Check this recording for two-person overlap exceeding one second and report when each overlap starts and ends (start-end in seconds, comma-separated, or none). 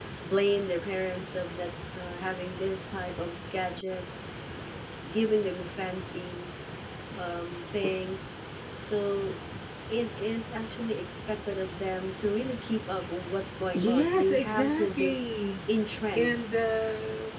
13.7-15.1